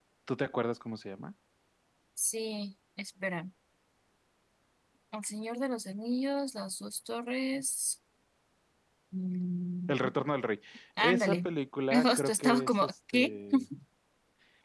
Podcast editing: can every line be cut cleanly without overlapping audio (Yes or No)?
No